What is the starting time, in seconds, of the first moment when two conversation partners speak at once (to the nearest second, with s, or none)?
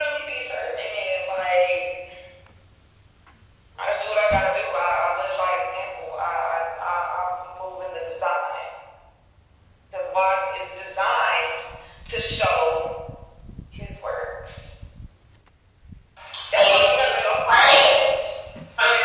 17 s